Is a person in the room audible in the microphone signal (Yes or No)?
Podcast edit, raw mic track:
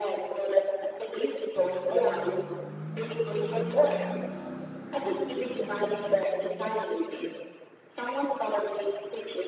No